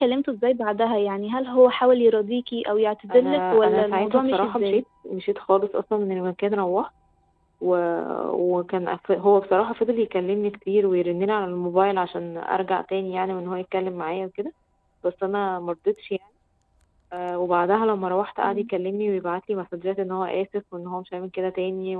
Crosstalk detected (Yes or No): Yes